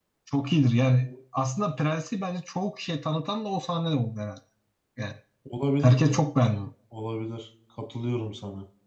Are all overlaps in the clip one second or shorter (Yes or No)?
Yes